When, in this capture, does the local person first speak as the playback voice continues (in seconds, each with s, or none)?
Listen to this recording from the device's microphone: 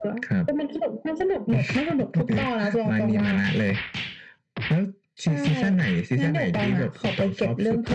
none